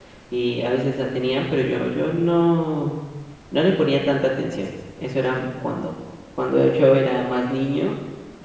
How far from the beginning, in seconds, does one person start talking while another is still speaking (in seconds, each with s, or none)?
none